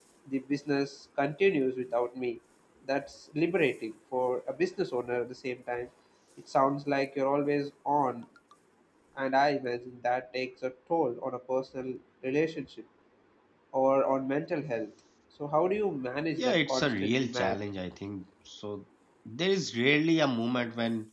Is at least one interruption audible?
Yes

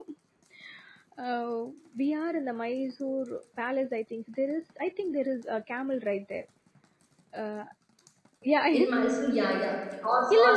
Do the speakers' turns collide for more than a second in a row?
No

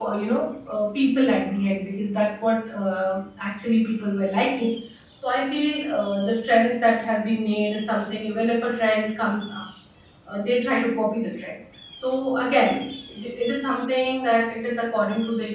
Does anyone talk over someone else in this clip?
No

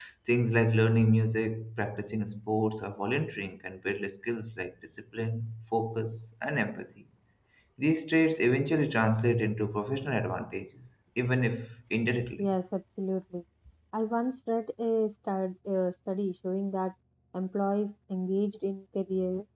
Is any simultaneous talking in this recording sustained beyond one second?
No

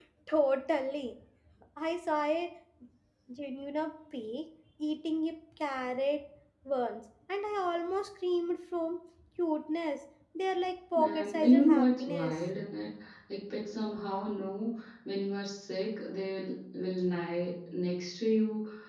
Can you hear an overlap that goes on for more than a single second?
Yes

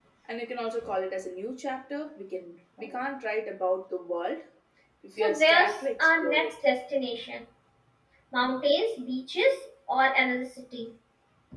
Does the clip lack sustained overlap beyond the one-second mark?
No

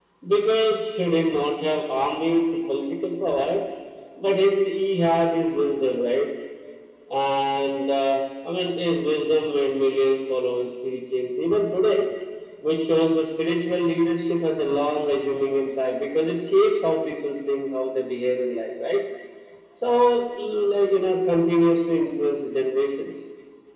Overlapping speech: No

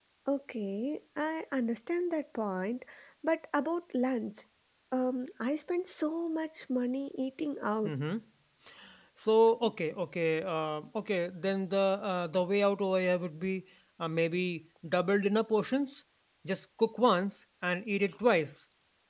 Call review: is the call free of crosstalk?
Yes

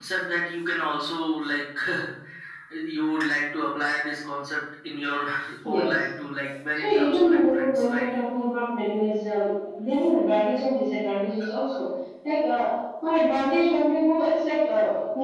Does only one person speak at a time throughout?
No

